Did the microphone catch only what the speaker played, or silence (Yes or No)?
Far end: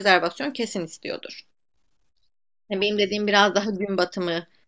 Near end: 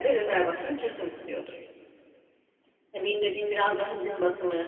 Yes